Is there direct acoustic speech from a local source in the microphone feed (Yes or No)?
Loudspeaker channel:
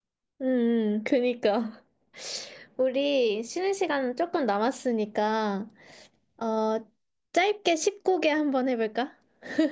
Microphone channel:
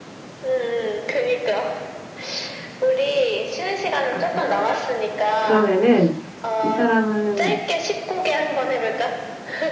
Yes